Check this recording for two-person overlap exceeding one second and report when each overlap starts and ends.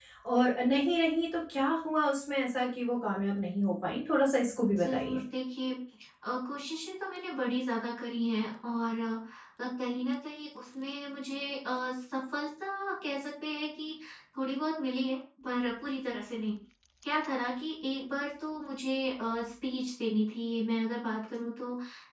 none

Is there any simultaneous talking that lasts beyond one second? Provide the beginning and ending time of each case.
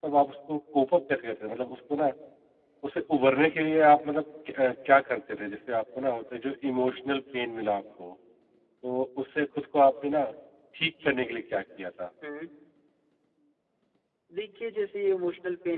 none

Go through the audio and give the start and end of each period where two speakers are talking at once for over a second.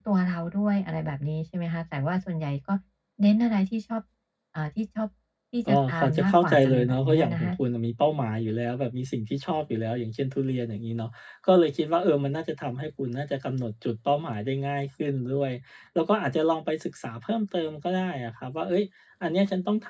5.7-7.5

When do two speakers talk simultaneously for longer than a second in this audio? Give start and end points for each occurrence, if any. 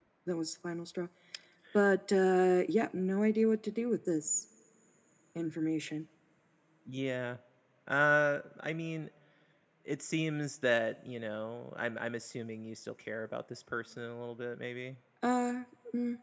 none

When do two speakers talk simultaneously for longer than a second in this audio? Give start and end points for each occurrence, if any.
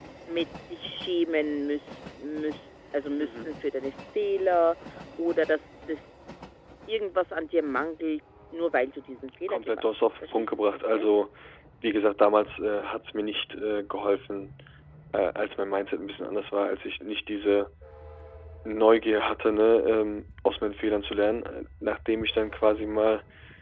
9.5-11.1

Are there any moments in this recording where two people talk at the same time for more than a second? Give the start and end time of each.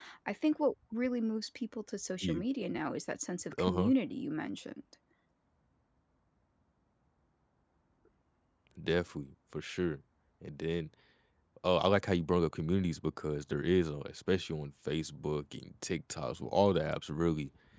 none

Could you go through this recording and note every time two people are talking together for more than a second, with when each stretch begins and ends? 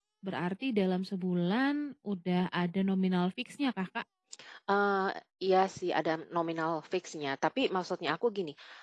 none

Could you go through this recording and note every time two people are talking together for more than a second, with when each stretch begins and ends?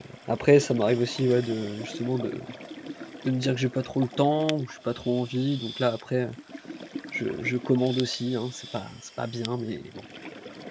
none

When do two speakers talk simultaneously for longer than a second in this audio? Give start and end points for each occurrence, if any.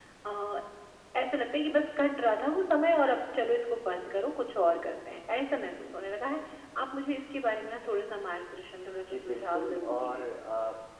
9.0-10.2

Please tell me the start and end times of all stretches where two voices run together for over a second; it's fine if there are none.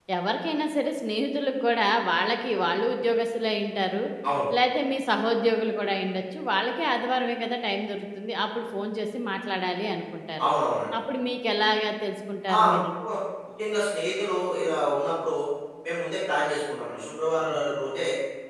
none

